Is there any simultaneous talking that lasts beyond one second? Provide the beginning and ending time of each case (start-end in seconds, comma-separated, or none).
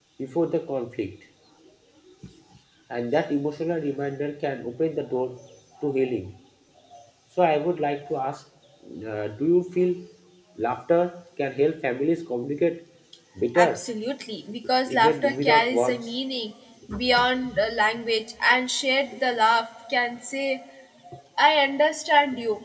14.9-16.1